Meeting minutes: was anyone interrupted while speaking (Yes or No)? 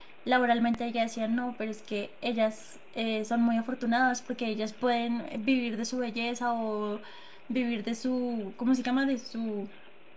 No